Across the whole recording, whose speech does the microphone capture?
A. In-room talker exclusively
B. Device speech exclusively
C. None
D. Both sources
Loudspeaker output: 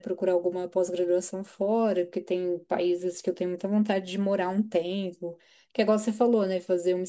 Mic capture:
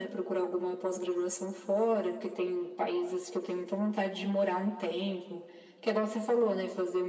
B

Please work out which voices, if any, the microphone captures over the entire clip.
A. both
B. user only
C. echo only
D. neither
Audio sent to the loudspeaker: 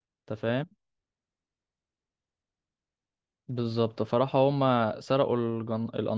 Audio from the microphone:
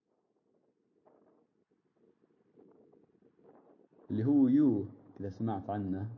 B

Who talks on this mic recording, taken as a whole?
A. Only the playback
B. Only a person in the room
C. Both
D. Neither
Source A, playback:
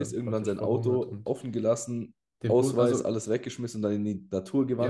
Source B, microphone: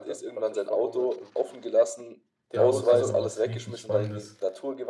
C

